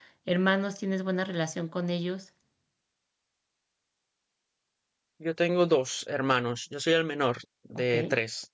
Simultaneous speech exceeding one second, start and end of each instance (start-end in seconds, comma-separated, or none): none